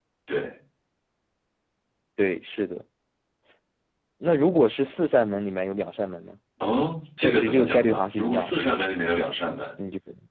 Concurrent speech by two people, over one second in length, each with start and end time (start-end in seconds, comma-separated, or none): 7.2-8.5